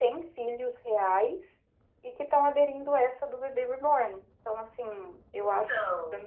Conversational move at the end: listening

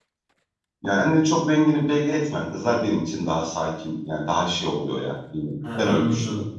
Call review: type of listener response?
taking over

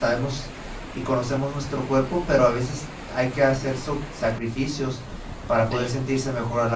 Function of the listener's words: listening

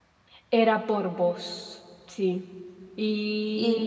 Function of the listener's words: taking over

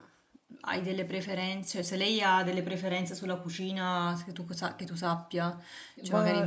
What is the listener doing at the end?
taking over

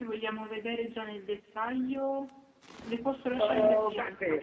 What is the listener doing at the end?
taking over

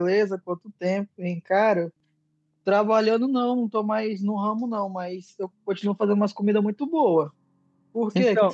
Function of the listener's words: taking over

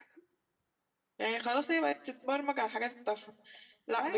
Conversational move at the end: listening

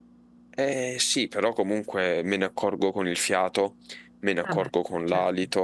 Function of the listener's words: listening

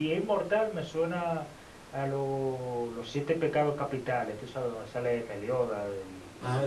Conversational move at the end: taking over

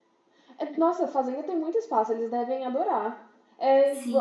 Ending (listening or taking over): taking over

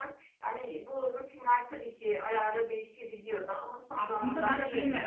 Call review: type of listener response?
taking over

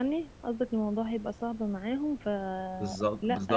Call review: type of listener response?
taking over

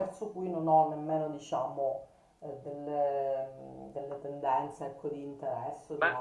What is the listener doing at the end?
taking over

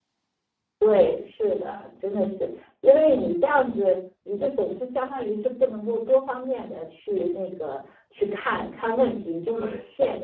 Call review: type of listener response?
listening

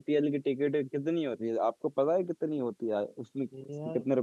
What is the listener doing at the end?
taking over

